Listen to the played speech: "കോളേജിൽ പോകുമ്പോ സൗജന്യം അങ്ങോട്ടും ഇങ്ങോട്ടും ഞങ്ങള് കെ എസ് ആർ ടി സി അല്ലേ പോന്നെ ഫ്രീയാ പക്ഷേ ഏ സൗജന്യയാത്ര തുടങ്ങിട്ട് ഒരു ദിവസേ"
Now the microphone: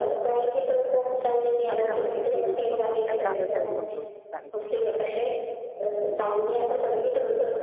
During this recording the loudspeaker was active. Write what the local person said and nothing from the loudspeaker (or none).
അവര് നമ്മളെ ഇങ്ങനെ സ്വീകരിച്ച് കൊണ്ടുപോകും എവിടാന്ന് വെച്ചാ അവര് കൊണ്ടുപോയി കാണിച്ചു തരും